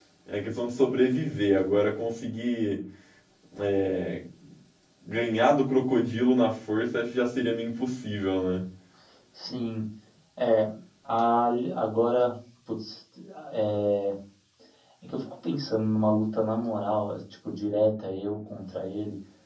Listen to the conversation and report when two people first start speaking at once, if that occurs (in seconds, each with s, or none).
none